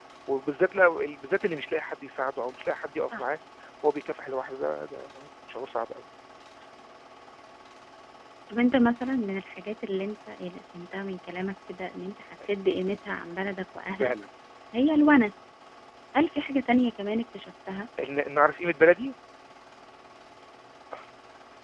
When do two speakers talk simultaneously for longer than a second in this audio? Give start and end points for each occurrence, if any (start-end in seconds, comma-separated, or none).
none